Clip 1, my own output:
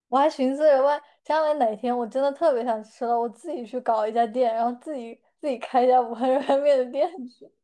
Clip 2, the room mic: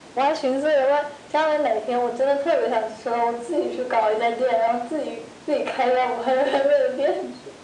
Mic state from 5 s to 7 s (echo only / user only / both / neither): echo only